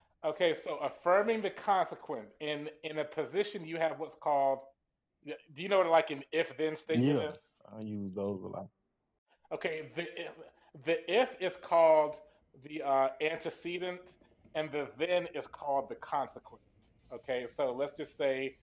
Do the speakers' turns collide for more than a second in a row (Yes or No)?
No